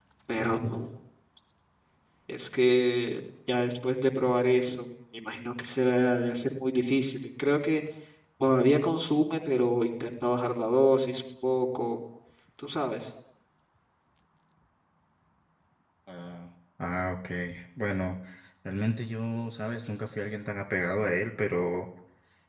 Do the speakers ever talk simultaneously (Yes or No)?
No